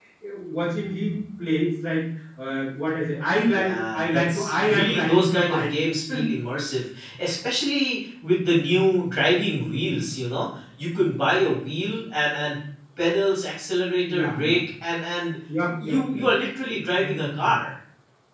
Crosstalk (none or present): present